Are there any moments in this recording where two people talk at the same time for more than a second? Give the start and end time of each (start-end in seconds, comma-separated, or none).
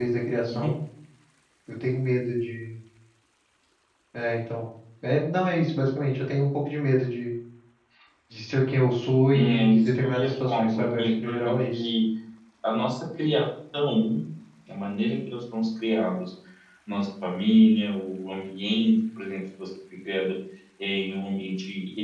9.3-11.9